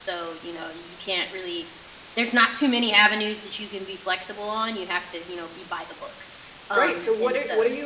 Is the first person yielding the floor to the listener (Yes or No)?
Yes